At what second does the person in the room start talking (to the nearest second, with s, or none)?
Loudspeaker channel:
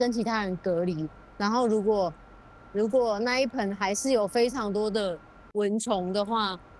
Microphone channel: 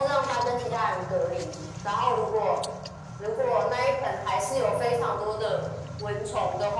none